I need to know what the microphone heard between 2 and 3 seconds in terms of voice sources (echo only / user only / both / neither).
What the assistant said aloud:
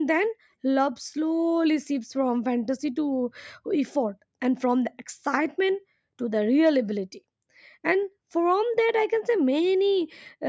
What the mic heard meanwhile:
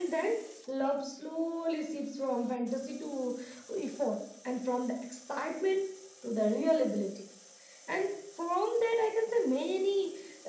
echo only